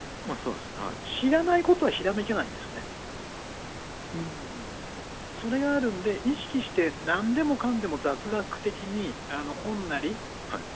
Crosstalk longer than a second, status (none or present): none